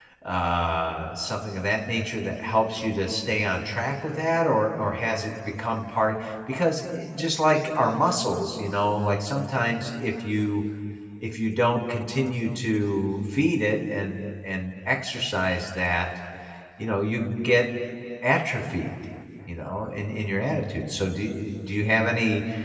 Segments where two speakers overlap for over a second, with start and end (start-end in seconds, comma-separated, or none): none